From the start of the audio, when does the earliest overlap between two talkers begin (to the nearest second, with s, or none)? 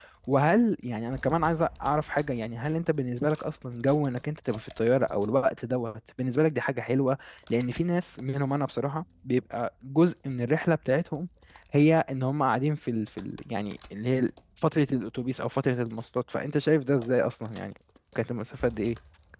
none